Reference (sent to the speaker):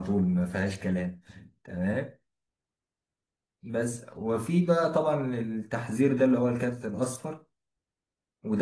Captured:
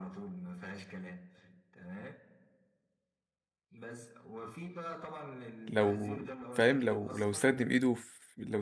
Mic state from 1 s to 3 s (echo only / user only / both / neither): echo only